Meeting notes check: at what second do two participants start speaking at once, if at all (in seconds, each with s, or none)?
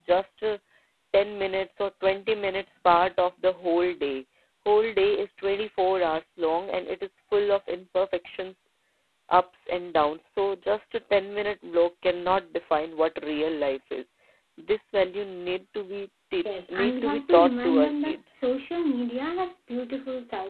16.4 s